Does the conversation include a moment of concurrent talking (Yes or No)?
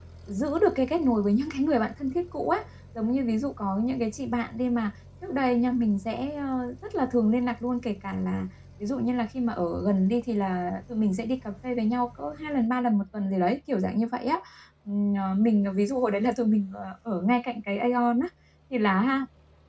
No